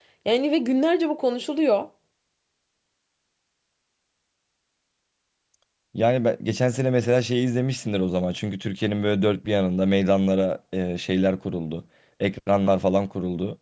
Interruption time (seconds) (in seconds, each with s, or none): none